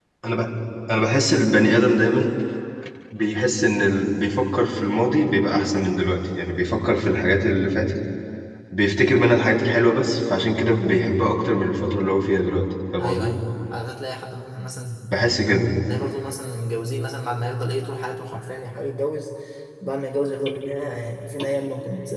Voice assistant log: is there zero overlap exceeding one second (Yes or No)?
Yes